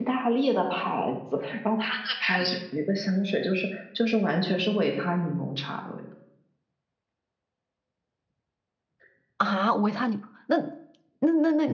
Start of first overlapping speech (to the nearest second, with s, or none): none